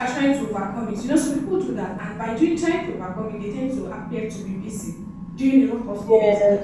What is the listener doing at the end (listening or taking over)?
listening